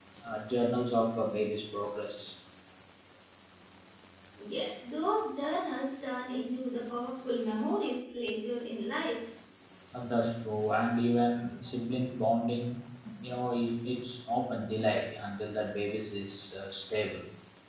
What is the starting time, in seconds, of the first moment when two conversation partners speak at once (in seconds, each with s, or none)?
none